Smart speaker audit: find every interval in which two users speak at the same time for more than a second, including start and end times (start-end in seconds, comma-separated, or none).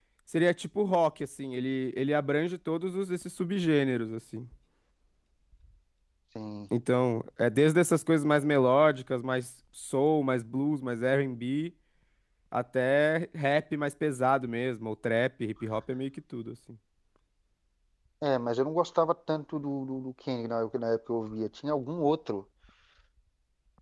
none